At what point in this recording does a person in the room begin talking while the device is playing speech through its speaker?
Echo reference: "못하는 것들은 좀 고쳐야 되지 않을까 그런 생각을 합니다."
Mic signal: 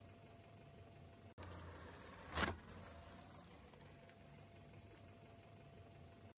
none

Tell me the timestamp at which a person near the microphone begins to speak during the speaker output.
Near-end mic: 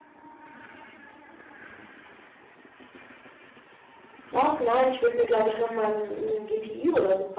4 s

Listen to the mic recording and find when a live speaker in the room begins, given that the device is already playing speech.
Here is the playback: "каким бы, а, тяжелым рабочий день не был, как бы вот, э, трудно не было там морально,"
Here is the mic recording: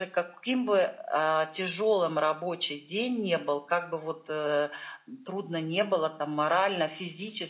none

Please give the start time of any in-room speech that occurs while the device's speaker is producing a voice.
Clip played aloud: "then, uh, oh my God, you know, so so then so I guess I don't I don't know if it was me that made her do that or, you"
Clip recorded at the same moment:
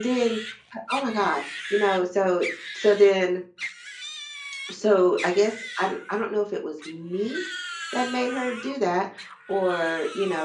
none

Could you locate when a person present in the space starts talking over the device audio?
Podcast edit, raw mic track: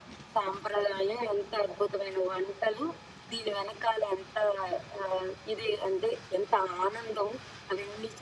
none

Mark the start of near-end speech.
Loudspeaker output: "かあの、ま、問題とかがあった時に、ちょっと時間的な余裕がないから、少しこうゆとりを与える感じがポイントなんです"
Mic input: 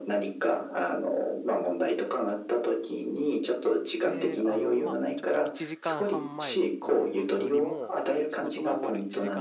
4 s

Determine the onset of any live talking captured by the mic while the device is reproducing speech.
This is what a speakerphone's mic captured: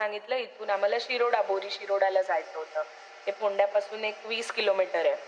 none

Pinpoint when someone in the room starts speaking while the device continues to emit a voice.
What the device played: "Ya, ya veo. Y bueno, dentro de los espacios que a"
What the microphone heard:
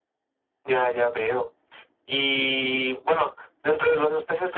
none

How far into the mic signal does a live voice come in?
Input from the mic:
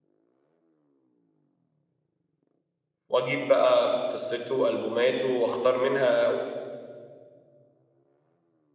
3 s

